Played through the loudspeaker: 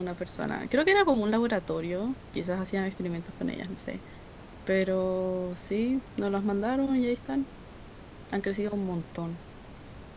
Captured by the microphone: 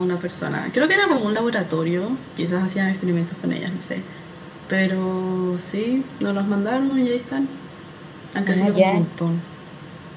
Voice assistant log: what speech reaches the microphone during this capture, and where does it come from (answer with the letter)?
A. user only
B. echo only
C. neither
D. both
D